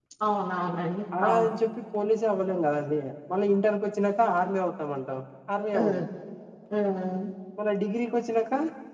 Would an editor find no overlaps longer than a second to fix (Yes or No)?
Yes